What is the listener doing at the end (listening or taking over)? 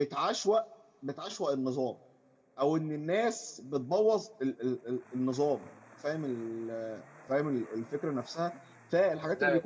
listening